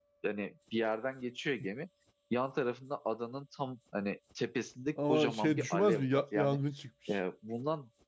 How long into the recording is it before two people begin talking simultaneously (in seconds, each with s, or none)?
5.0 s